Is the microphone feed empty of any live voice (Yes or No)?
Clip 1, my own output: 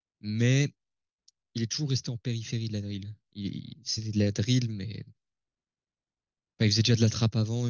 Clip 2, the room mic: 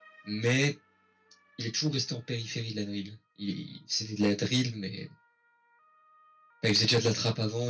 Yes